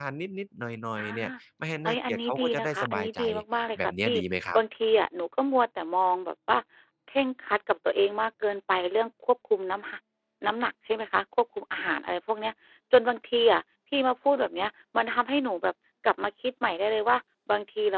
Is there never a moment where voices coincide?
No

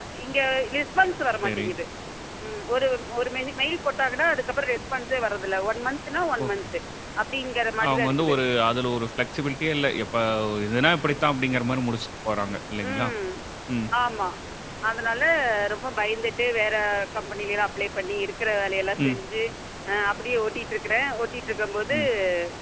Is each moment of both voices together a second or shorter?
Yes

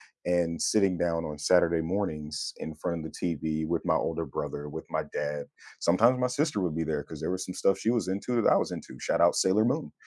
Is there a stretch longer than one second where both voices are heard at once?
No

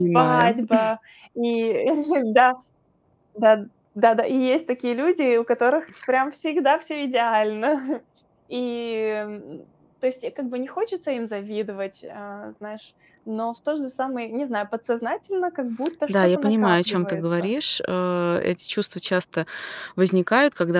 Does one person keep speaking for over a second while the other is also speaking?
Yes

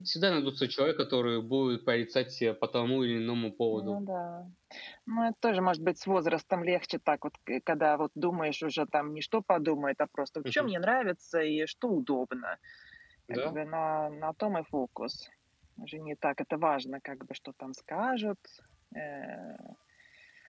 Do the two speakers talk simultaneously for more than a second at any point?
No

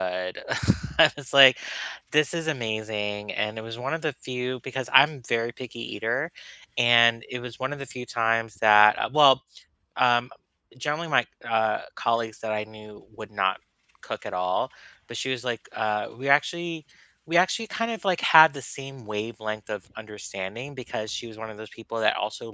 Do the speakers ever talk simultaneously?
No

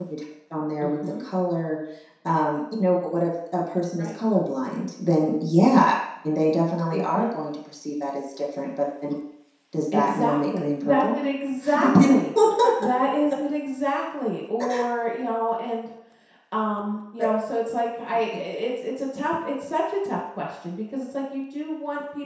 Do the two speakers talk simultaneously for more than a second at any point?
Yes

